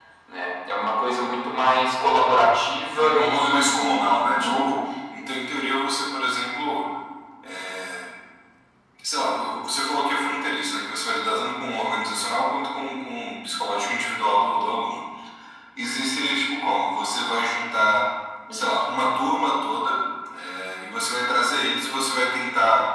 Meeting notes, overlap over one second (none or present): present